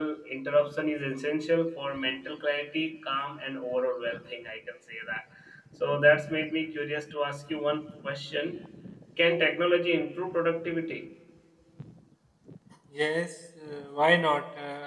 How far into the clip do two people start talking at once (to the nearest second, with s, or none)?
none